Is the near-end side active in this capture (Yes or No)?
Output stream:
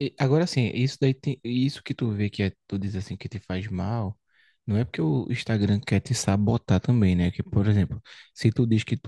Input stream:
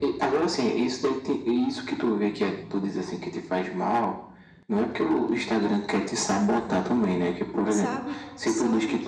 Yes